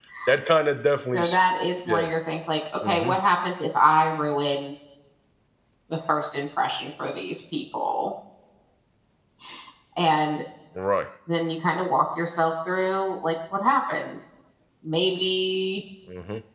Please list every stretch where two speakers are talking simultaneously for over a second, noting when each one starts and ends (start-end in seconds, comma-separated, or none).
none